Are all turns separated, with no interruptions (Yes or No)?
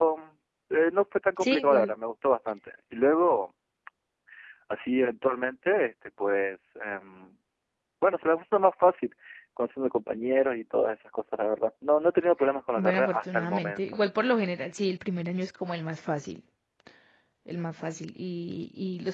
No